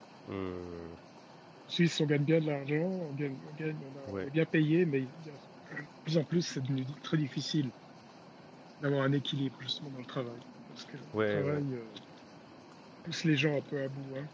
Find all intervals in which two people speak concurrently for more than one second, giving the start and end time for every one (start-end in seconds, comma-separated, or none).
none